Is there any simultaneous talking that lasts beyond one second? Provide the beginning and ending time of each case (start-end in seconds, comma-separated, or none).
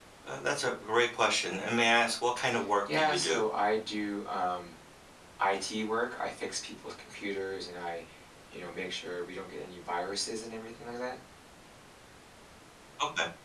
none